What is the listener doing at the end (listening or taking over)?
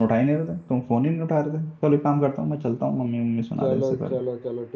taking over